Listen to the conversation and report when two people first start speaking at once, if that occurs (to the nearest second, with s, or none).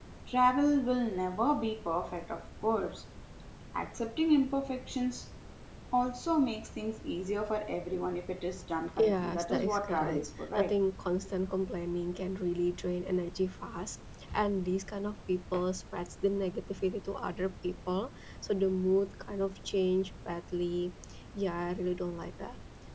9 s